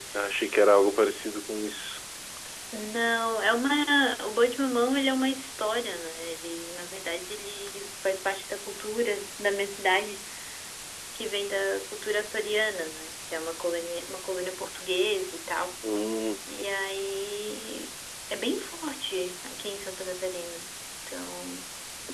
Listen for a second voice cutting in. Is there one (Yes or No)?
No